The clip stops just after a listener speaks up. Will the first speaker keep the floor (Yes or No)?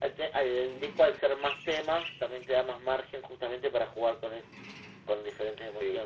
Yes